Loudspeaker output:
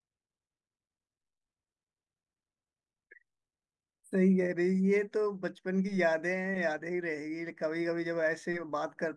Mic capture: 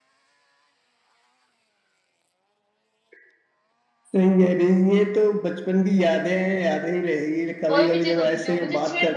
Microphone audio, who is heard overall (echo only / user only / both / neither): both